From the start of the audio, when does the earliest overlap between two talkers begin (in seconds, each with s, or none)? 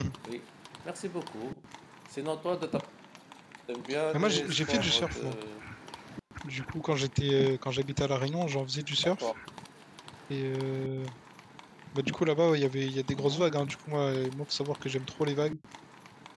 4.1 s